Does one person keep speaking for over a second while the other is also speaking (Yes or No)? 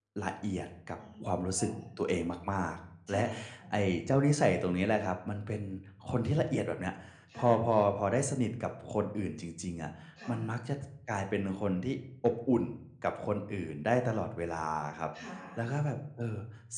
No